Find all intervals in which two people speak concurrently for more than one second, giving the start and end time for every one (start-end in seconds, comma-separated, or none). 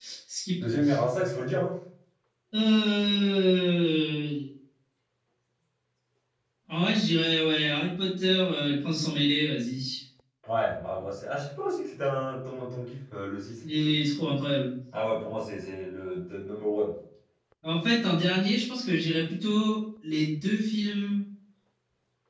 none